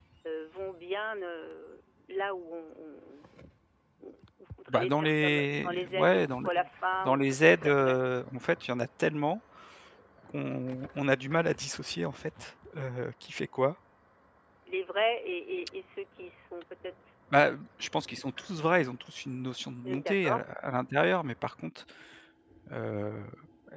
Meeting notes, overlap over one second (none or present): present